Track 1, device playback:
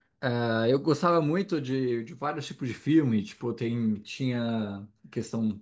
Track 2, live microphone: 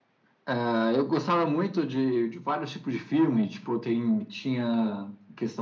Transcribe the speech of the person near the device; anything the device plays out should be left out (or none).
none